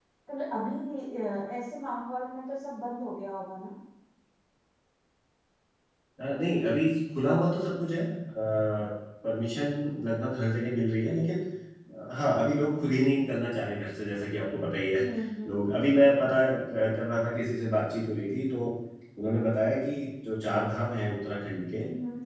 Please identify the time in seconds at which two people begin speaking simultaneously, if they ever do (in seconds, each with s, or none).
none